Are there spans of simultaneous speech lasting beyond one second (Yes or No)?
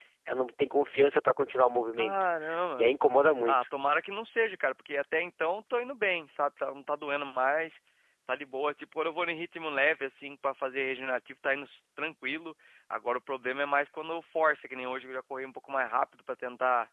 No